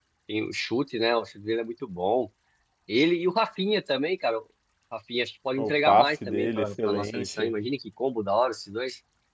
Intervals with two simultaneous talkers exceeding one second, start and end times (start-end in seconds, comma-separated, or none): 5.6-7.5